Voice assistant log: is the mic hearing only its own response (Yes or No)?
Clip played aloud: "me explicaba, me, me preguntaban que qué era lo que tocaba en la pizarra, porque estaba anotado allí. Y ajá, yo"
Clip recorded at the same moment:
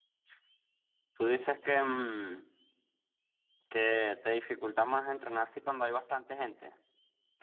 No